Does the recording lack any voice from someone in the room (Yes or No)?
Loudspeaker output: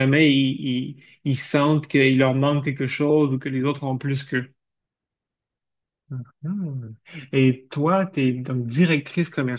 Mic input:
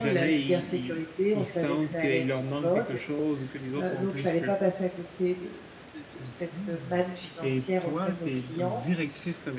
No